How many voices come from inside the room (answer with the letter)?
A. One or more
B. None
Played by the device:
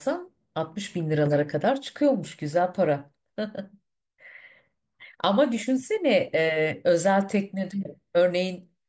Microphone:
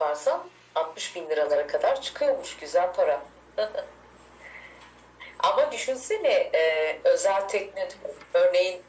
B